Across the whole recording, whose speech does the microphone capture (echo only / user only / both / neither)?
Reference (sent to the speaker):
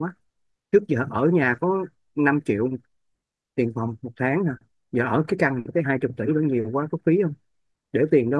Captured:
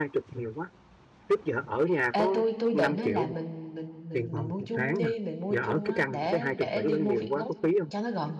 both